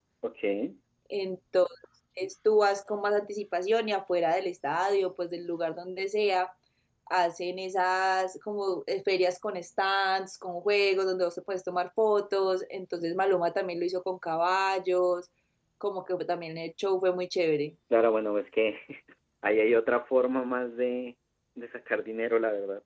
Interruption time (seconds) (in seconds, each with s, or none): none